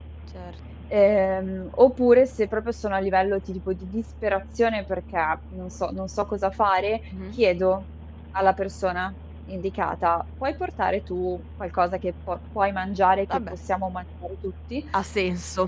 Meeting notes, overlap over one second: none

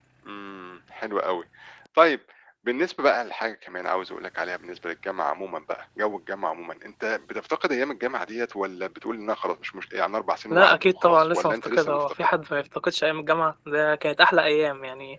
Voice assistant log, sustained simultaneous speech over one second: present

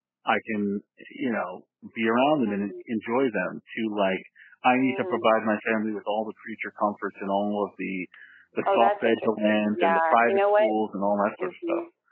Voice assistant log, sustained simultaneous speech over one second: present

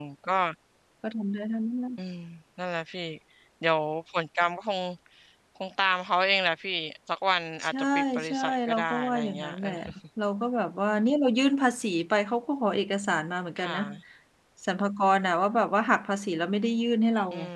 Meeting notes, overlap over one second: present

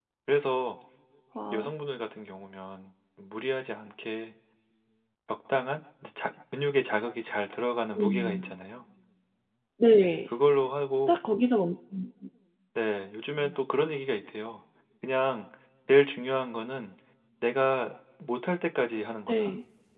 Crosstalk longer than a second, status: none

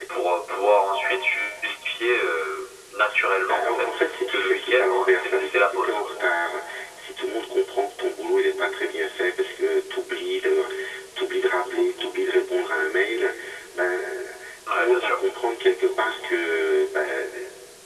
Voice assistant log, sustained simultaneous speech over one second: present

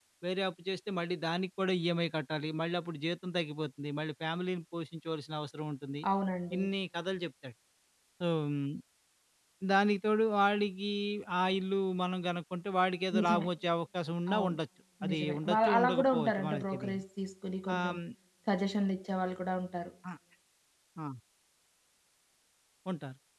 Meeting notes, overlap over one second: present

